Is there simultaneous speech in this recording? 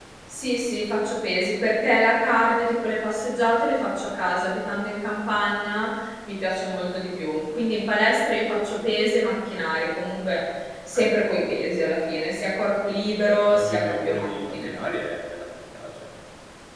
Yes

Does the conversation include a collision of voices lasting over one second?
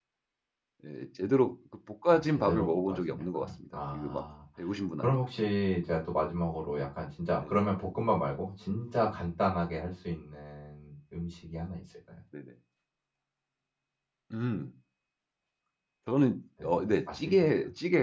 Yes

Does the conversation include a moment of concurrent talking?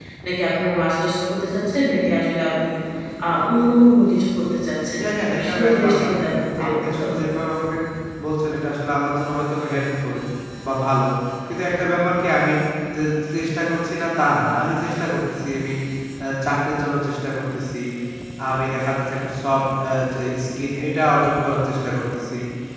Yes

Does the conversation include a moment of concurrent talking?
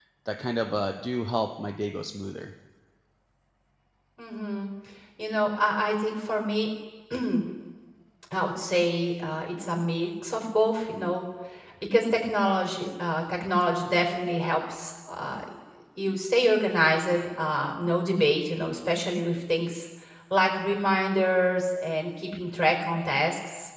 No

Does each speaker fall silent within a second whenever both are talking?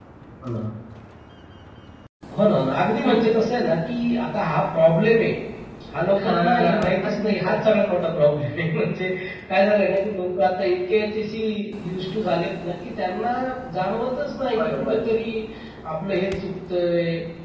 No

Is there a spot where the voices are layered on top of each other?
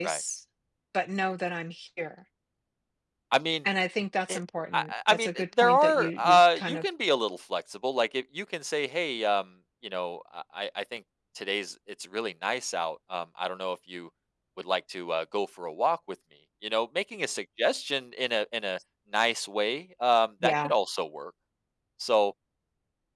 Yes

